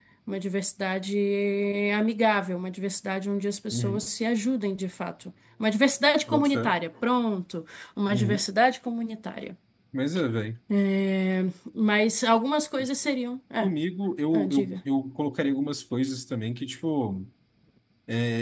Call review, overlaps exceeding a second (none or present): none